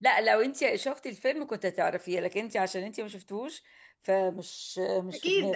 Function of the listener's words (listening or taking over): taking over